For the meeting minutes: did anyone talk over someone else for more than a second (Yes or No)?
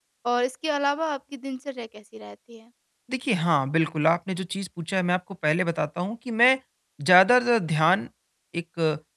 No